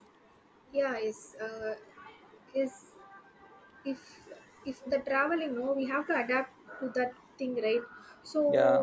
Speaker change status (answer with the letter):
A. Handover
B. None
B